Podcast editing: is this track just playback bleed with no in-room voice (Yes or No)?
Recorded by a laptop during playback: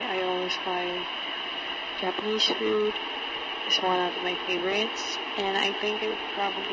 Yes